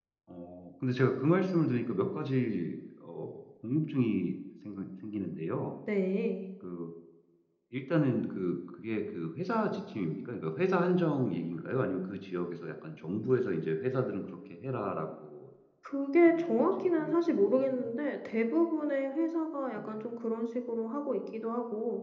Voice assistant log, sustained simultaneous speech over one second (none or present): present